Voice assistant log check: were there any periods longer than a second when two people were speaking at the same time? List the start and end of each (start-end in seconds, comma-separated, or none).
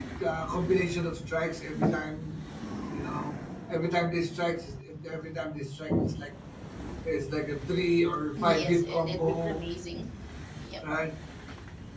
8.4-9.6